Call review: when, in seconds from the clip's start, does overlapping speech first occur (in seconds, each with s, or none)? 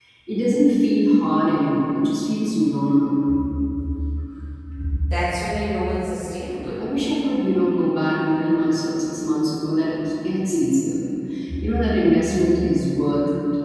none